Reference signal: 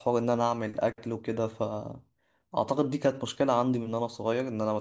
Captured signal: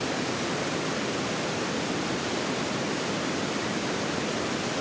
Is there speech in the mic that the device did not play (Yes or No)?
No